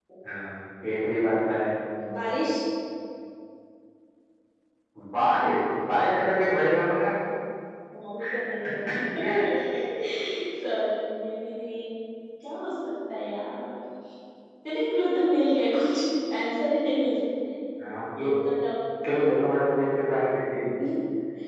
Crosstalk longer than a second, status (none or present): none